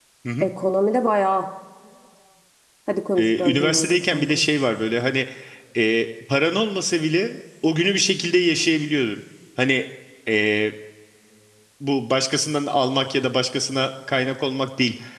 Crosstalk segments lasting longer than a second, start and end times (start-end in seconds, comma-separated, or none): 3.2-4.5